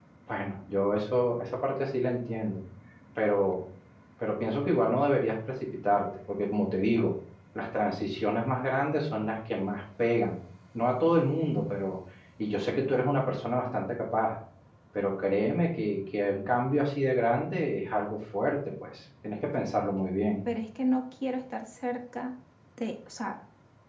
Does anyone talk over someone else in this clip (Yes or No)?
No